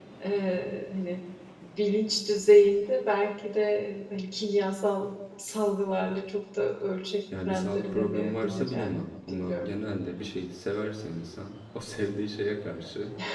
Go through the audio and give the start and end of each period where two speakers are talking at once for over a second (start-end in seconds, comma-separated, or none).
7.4-8.9